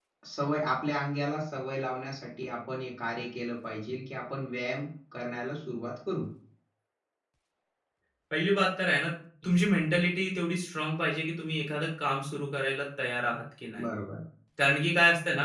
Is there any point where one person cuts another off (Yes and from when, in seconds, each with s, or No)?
No